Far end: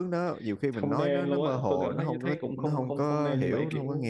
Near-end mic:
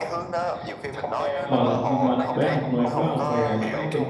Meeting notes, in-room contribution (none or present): present